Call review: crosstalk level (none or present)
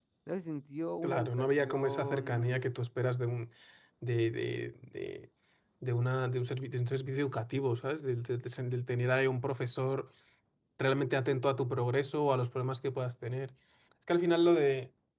present